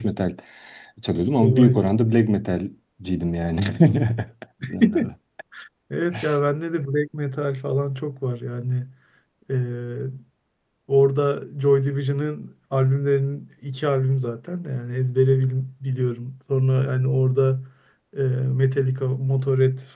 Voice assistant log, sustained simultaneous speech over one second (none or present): none